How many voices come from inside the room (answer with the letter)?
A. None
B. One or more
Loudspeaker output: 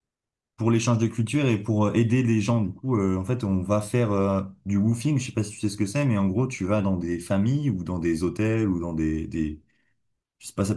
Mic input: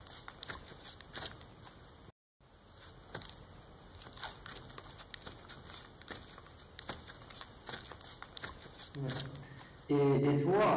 B